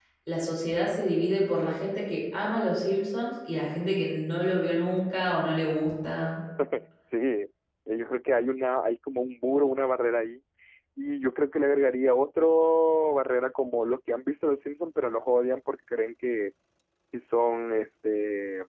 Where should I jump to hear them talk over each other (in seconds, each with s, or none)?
none